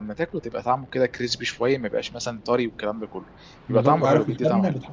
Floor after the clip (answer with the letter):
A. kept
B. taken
B